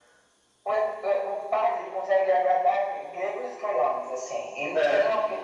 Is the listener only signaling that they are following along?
Yes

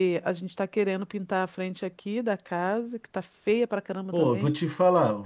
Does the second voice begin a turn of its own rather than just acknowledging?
Yes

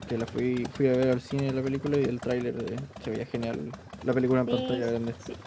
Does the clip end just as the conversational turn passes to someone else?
Yes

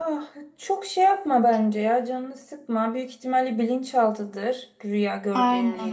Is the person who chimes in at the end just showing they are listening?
No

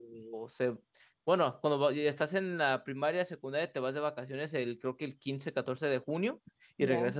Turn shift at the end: No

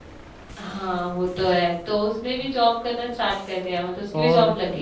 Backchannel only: No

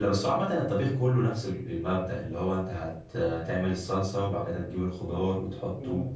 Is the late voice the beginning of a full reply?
Yes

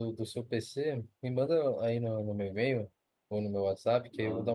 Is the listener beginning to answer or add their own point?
No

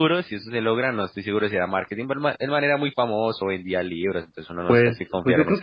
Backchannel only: No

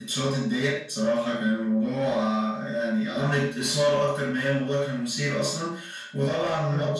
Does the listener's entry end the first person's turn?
No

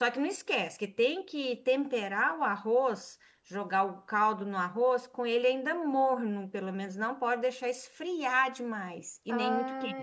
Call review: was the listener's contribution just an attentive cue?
No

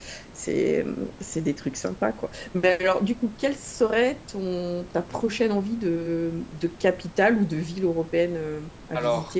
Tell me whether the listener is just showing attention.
No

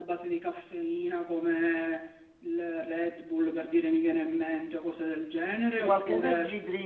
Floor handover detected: Yes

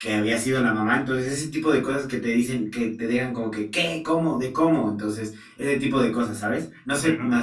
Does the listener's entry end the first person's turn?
No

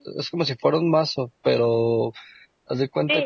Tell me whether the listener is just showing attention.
No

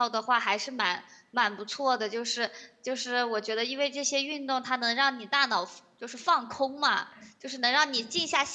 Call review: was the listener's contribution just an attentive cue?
Yes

